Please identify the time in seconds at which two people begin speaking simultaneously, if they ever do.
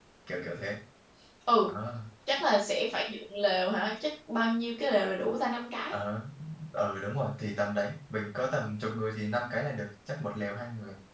none

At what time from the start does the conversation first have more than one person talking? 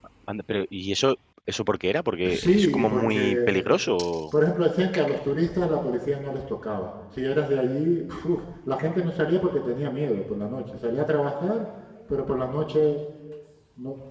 2.2 s

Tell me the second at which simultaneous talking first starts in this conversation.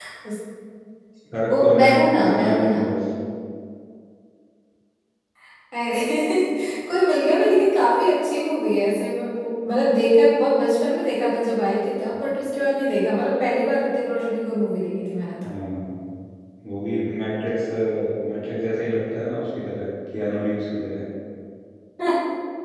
1.5 s

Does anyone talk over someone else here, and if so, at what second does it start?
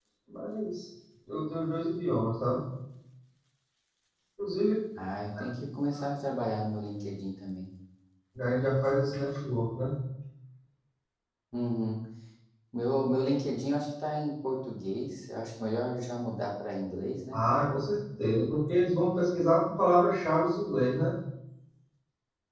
none

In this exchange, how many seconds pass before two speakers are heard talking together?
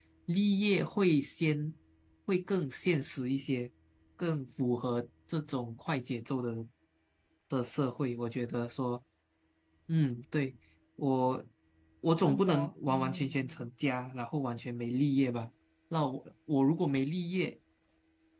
12.2 s

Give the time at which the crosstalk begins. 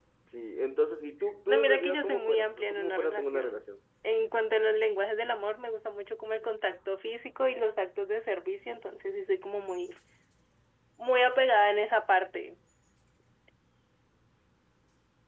1.5 s

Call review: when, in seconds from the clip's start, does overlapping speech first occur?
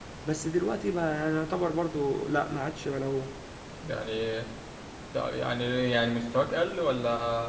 none

